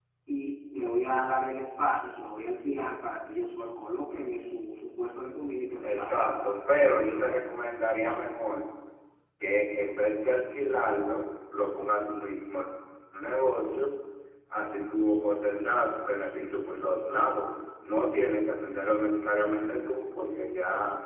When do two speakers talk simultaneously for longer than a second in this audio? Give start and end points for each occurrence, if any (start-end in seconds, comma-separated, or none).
5.8-7.4